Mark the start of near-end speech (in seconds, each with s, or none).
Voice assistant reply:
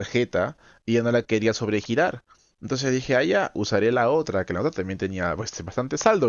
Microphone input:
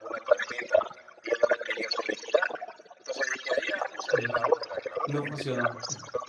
4.1 s